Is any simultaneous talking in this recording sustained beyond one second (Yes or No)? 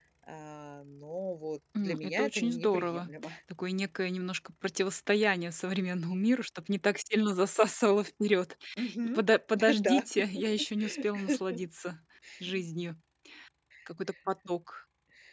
Yes